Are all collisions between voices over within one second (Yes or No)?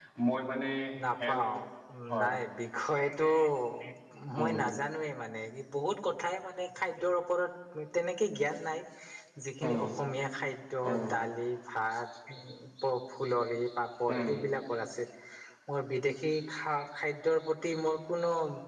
Yes